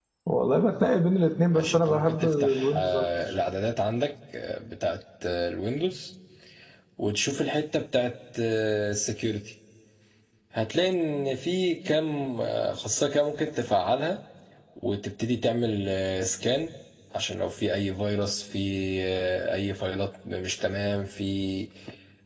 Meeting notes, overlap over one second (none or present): present